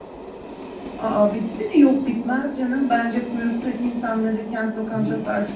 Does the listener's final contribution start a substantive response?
No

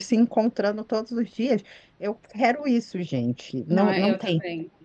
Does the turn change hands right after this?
Yes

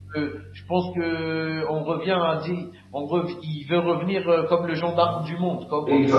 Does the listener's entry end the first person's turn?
Yes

